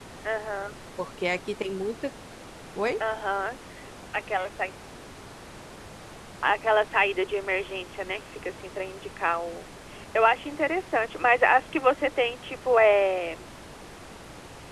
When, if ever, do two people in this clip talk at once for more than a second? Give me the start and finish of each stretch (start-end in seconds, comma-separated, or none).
none